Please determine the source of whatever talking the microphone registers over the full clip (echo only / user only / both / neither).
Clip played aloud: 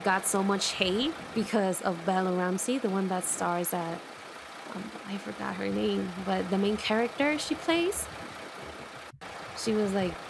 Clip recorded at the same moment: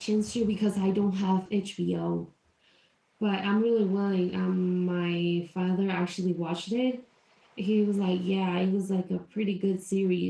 user only